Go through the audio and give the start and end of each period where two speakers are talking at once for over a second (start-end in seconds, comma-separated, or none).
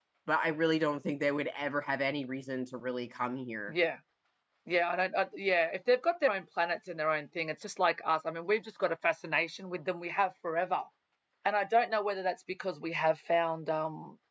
none